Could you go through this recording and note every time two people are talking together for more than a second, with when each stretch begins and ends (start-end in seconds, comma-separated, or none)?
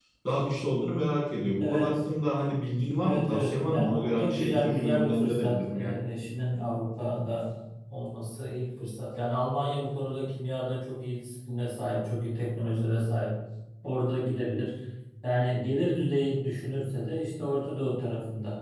3.0-6.0